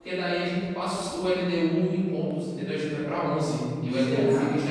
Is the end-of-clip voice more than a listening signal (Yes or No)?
No